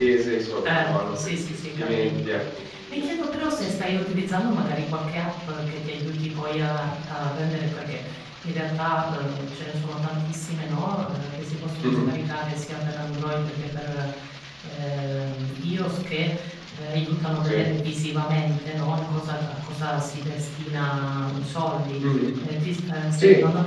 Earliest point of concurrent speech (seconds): 0.6 s

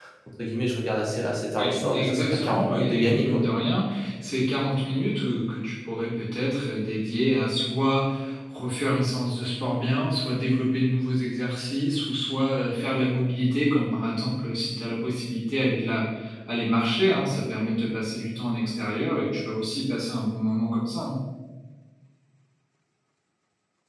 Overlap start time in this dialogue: 1.6 s

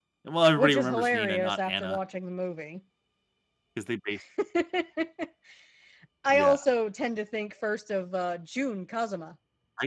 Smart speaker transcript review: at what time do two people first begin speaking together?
0.6 s

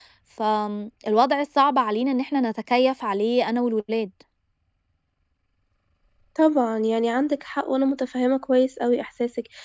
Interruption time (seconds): none

